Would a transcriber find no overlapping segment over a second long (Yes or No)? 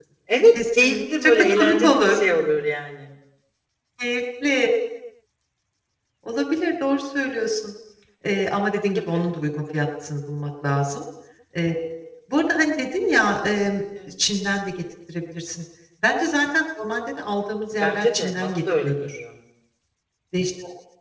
No